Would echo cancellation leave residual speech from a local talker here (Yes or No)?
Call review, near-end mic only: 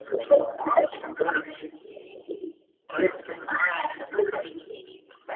No